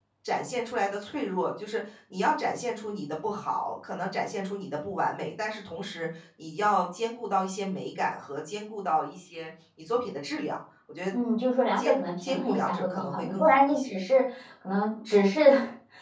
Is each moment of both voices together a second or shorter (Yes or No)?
No